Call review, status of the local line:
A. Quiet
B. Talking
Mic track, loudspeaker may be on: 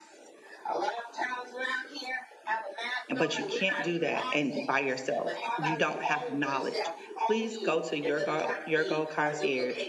B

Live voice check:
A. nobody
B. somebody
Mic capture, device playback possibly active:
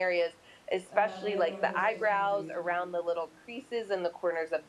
B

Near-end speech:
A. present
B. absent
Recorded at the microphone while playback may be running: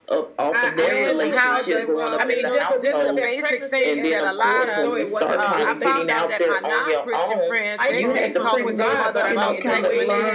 A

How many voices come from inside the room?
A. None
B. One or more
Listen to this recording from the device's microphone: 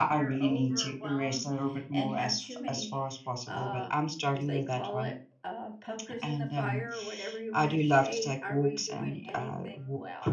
A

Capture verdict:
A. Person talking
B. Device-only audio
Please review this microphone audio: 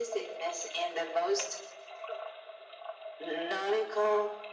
B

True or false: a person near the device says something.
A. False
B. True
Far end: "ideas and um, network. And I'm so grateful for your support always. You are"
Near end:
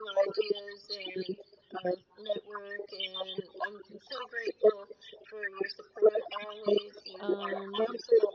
B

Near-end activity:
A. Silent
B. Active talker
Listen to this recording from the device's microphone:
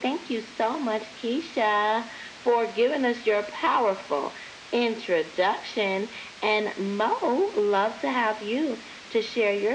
A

